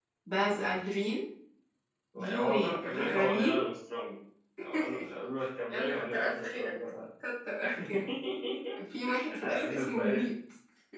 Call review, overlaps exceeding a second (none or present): present